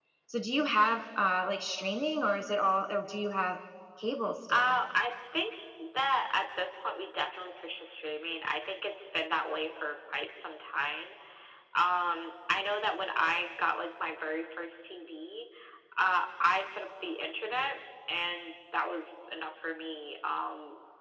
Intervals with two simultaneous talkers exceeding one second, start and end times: none

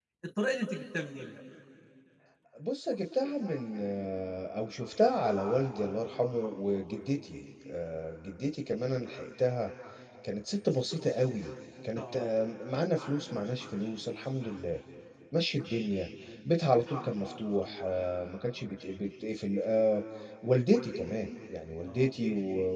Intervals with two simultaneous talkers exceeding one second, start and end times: none

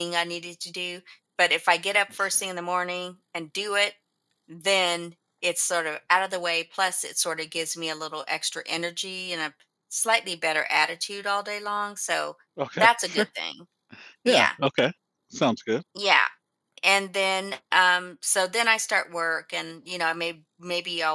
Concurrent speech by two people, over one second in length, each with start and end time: none

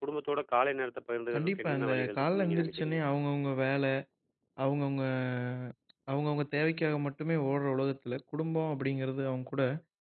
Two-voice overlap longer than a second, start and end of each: 1.3-3.0

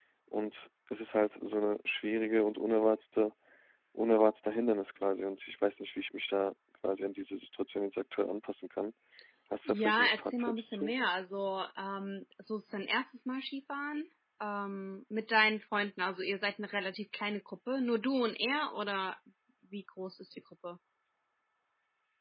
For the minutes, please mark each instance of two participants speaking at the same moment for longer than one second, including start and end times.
9.7-10.9

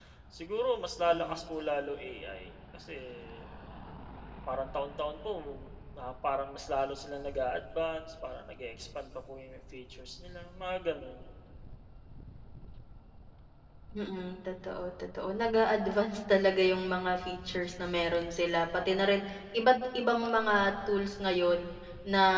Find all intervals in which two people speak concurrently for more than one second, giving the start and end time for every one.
none

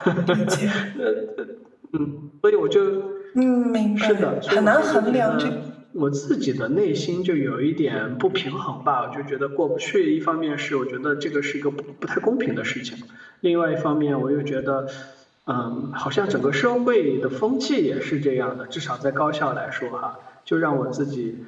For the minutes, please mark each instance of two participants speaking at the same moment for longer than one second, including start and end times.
4.0-5.5

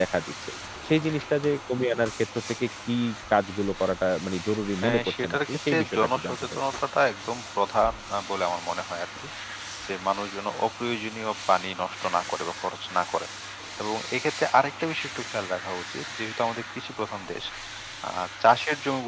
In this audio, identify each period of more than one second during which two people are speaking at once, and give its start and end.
4.8-6.5

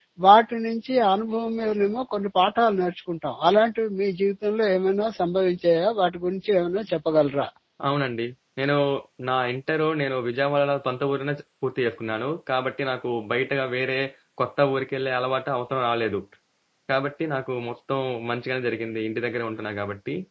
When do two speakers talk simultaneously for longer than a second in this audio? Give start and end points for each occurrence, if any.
none

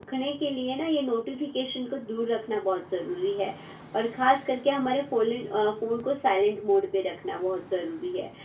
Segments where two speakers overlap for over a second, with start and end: none

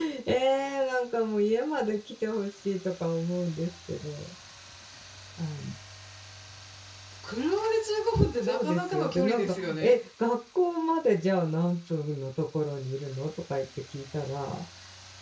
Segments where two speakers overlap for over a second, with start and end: 8.4-9.9

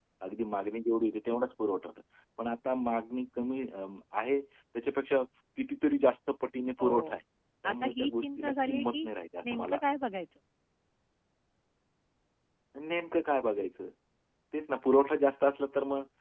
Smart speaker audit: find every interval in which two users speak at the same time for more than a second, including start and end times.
7.7-9.1

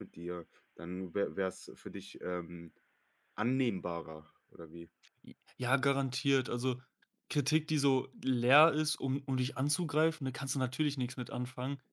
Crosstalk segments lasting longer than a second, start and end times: none

